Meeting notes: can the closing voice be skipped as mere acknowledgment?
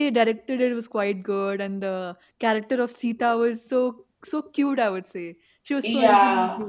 No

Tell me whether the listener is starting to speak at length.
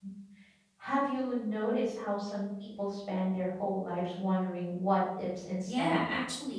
Yes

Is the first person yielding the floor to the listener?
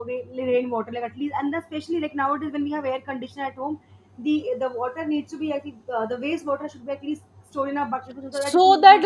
Yes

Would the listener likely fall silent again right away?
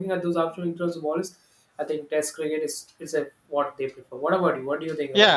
No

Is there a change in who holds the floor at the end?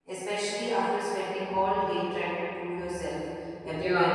Yes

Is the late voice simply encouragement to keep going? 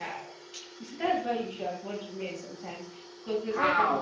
No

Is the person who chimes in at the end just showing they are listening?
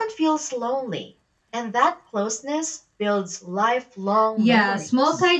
No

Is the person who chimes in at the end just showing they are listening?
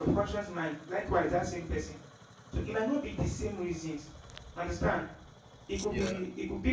Yes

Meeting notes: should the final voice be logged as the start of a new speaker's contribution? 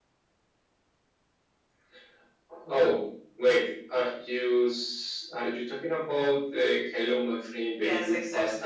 Yes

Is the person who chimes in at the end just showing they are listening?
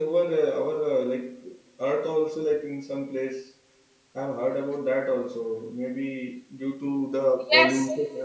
Yes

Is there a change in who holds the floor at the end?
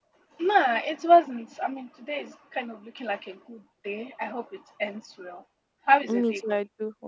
Yes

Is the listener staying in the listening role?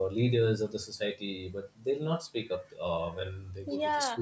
No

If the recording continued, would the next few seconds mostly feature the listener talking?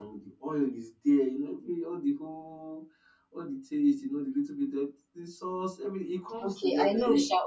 Yes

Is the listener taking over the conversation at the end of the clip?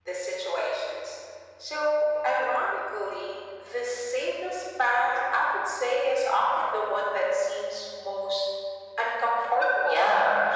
Yes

